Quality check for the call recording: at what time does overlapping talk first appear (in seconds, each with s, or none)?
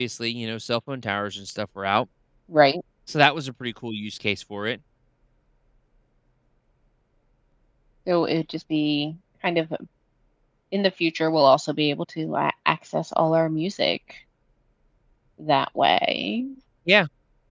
none